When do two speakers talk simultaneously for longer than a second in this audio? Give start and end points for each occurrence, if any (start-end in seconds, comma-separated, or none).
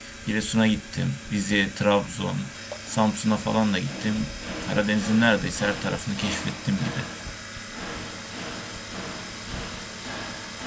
none